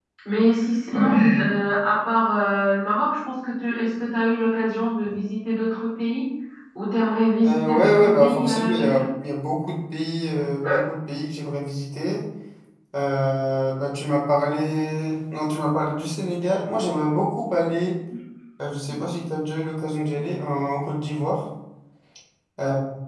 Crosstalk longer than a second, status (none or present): present